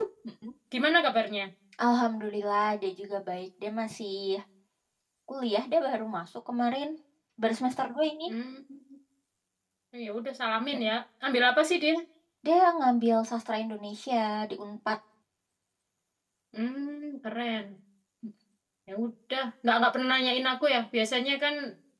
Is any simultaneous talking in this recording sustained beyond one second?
No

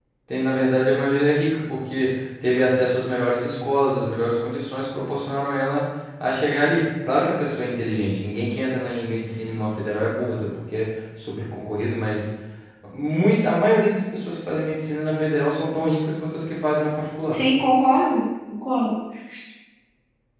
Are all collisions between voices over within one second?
Yes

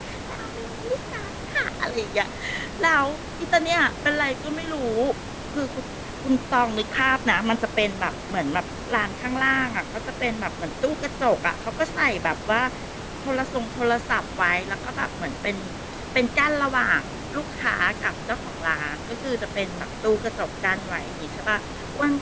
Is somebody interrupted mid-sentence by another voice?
No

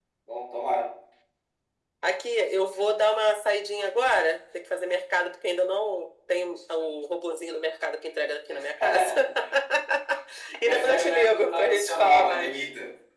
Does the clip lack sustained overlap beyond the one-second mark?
No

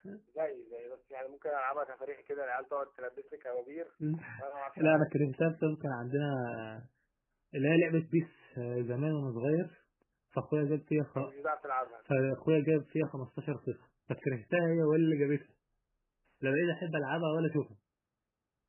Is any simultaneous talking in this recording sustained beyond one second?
No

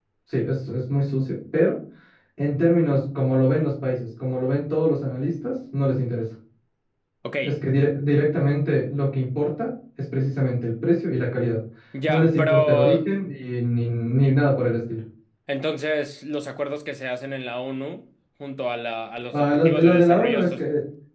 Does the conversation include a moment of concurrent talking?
Yes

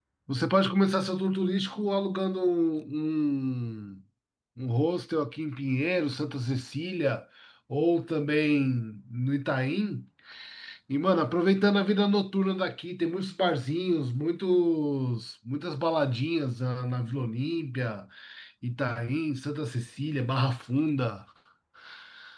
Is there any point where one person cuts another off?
No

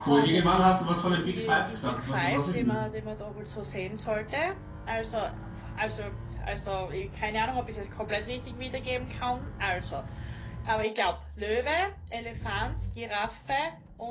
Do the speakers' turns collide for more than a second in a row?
Yes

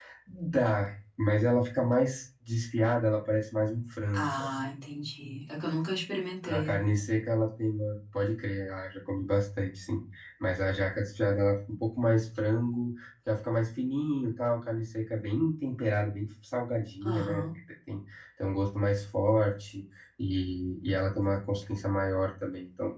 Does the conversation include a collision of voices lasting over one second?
No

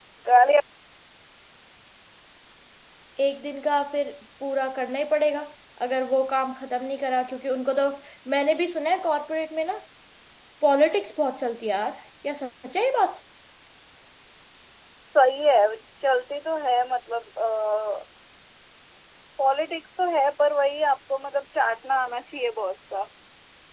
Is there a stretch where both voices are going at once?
No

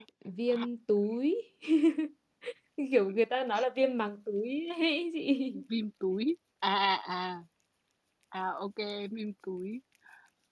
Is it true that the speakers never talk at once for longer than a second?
Yes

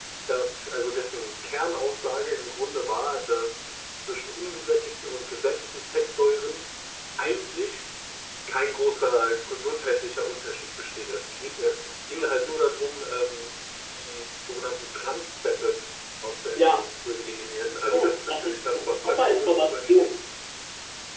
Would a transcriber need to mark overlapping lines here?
Yes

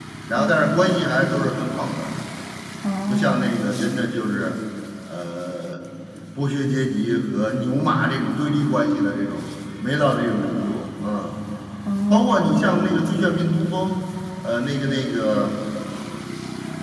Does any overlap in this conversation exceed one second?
No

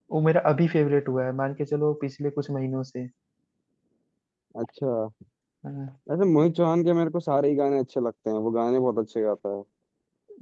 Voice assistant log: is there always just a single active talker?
Yes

